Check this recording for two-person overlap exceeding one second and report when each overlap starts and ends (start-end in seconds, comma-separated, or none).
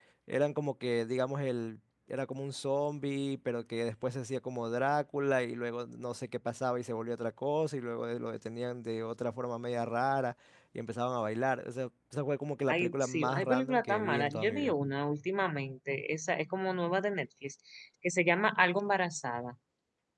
12.7-14.7